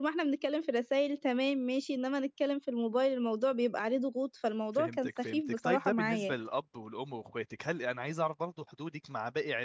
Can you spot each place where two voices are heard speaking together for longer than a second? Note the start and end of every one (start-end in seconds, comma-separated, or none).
4.7-6.3